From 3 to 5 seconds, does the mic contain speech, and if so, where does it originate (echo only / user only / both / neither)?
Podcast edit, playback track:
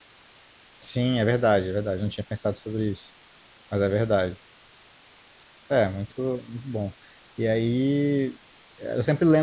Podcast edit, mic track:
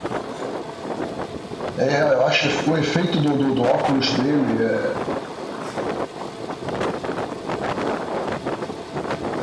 user only